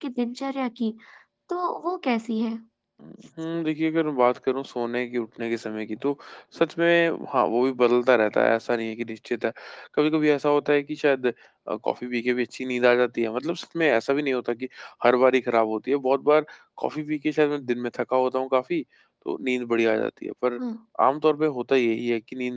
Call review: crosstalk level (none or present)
none